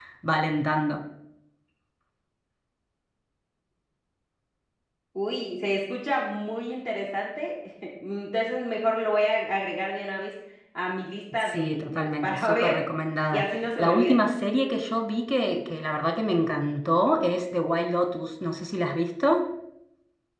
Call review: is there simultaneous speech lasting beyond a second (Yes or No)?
Yes